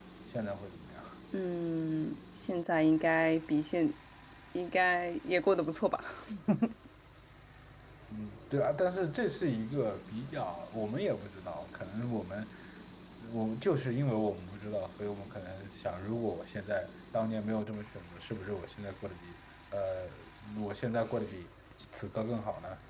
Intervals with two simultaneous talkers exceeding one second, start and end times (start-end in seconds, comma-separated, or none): none